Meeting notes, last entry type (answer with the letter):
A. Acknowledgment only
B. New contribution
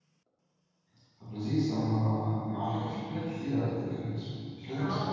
B